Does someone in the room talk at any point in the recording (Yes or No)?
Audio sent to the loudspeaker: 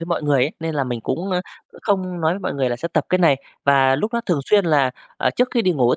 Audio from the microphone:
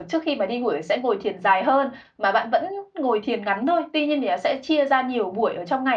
Yes